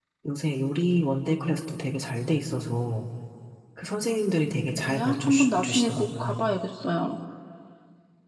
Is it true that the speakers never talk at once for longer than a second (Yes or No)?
No